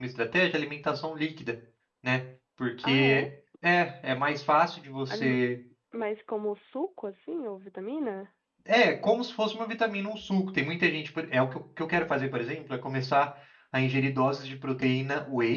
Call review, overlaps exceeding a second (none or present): none